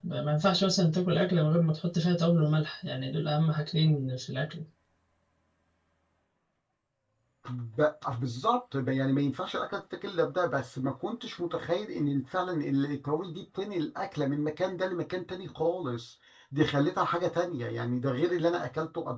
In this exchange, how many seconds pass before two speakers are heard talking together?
none

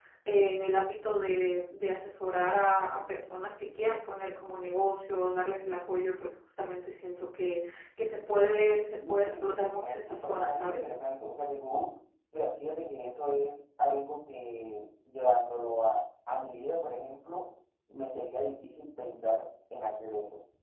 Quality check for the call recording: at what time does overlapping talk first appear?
9.0 s

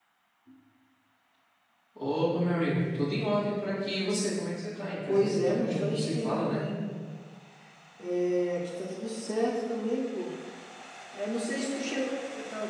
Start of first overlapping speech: 5.1 s

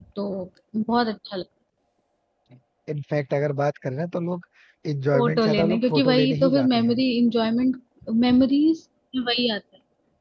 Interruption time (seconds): 5.1 s

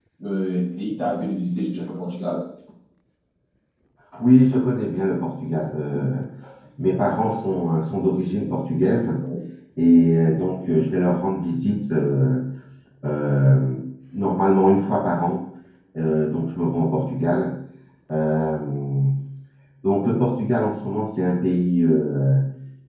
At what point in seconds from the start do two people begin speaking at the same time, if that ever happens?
none

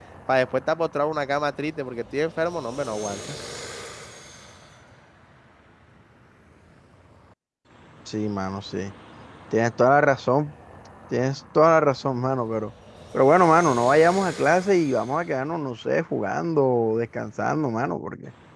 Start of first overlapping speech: none

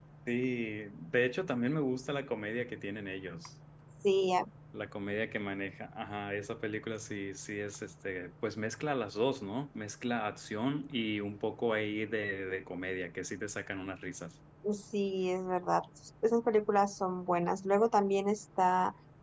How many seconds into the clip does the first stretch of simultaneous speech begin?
none

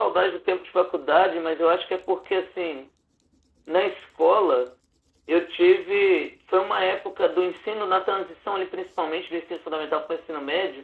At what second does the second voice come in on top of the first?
none

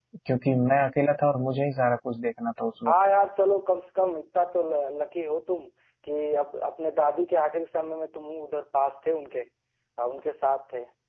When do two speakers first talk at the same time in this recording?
none

